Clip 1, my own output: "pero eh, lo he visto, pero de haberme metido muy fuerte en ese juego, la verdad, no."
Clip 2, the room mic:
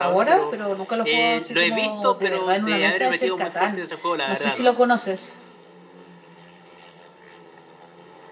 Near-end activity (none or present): present